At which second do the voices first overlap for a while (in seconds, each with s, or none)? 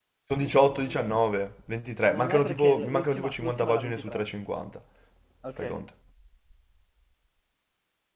2.1 s